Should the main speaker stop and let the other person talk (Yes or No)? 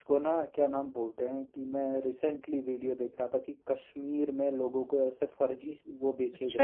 Yes